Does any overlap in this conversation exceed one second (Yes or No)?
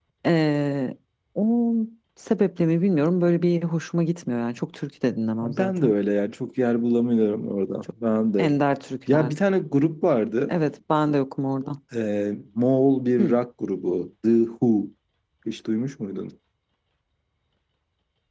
No